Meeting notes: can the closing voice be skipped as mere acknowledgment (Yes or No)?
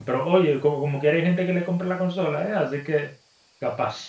No